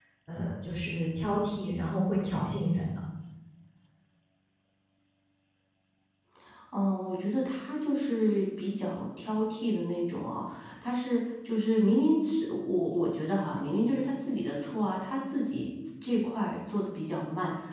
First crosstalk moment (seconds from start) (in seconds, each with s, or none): none